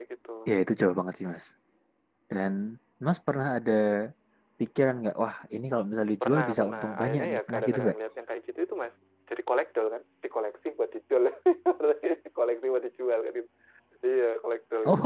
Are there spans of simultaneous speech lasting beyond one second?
Yes, from 6.2 s

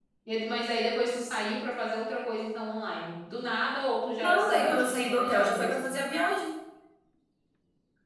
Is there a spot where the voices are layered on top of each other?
Yes, from 4.2 s

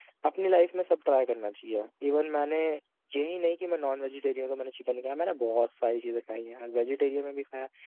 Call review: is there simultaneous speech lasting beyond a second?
No

